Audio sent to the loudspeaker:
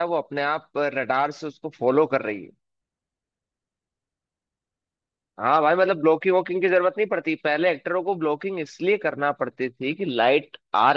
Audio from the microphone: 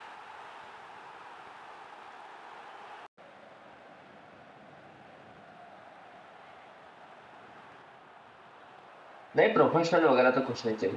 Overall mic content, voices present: user only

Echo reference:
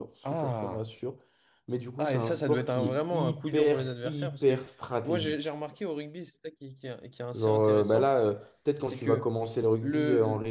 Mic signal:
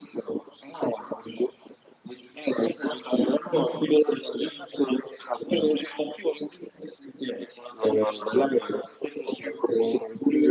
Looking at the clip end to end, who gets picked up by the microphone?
echo only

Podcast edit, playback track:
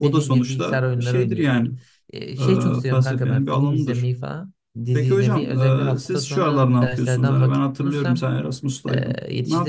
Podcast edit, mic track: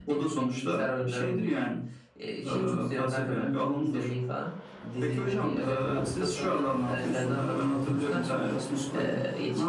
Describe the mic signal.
both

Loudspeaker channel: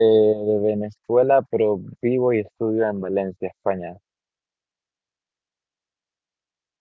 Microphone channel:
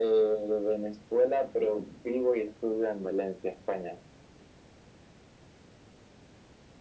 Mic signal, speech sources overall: echo only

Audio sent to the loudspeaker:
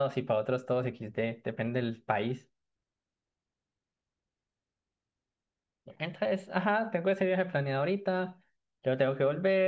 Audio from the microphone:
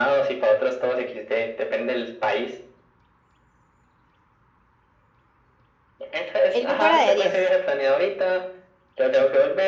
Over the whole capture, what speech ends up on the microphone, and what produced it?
both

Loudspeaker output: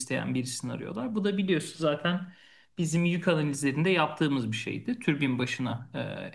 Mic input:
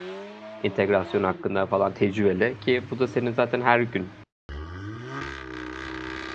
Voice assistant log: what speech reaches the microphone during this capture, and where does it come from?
user only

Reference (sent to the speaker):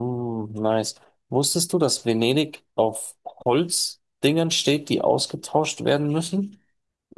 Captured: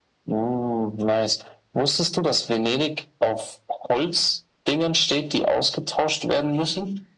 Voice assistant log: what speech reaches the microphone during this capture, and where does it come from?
echo only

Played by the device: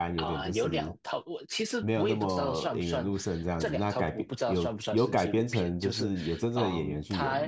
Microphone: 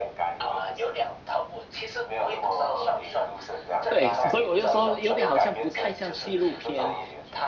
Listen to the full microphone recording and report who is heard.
both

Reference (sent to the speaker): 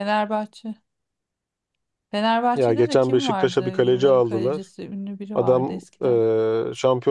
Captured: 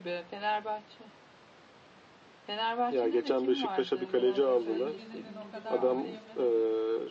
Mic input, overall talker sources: both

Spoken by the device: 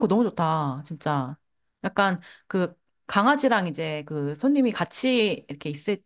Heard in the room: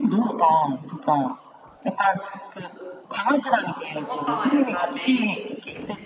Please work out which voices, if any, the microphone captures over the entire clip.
both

